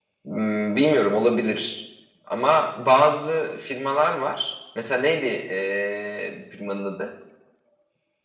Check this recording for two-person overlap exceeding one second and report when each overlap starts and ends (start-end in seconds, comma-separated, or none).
none